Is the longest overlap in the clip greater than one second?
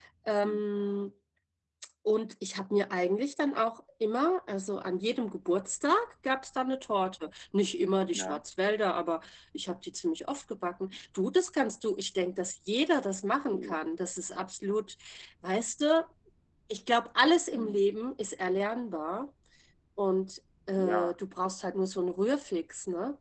No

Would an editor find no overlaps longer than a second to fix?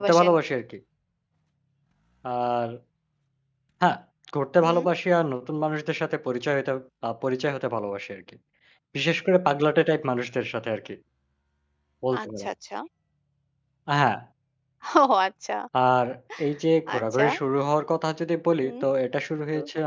Yes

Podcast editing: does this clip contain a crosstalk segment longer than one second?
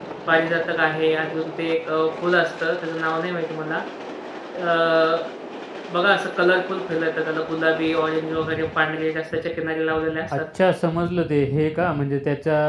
No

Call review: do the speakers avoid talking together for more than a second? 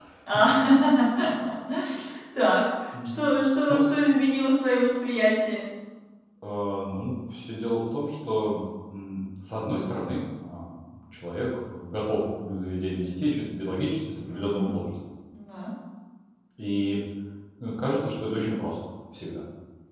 Yes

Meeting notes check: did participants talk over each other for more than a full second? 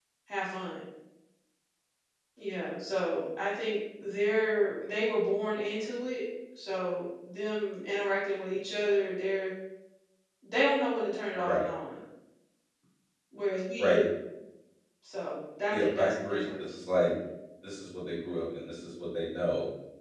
Yes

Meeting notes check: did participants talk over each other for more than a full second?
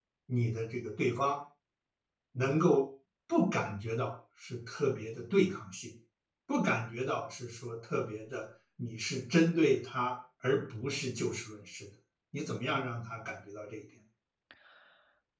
No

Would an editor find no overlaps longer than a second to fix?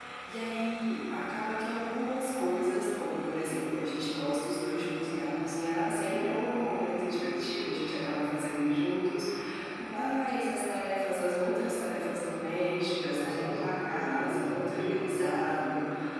No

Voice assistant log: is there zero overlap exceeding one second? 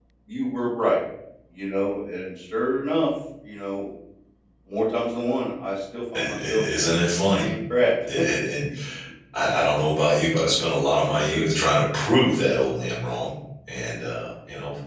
No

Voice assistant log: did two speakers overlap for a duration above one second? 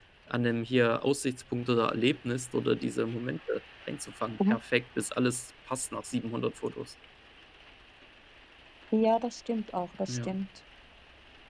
No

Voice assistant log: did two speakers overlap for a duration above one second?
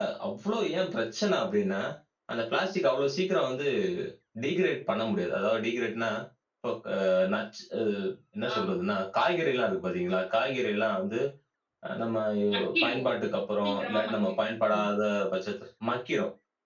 Yes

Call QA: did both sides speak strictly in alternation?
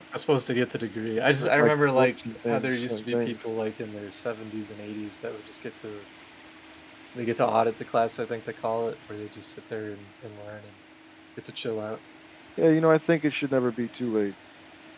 No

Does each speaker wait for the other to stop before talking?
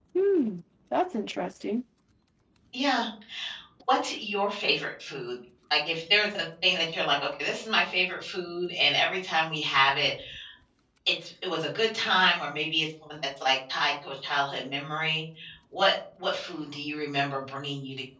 Yes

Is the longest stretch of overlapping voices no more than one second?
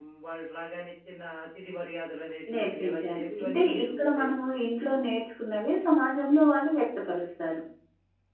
No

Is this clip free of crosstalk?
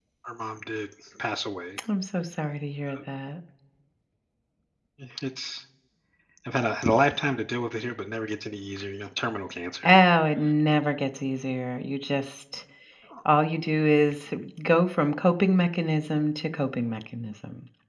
Yes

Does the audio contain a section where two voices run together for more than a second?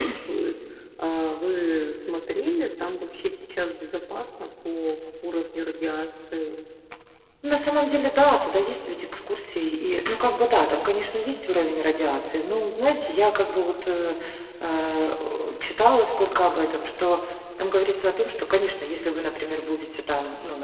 No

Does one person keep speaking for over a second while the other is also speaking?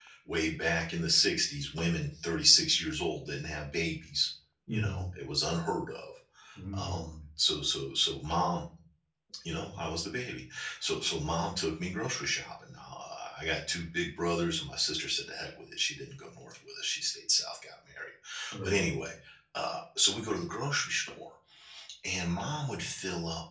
No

